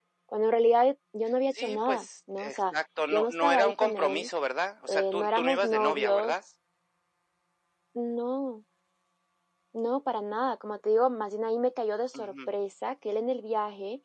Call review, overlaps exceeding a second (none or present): present